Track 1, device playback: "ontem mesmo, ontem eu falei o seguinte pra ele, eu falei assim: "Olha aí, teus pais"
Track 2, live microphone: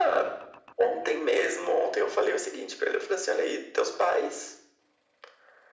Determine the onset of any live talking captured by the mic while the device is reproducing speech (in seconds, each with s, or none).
none